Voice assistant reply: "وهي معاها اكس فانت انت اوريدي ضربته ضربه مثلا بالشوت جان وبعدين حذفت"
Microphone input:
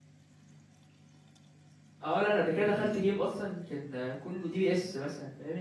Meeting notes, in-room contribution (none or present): present